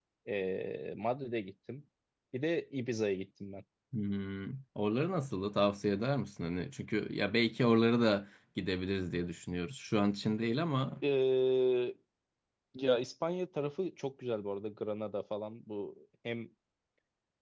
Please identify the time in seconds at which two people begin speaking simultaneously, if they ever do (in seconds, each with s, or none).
none